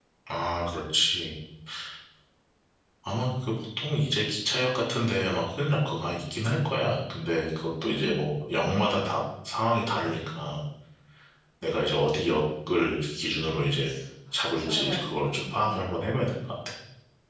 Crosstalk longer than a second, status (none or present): present